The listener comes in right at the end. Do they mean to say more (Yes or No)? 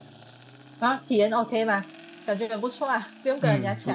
Yes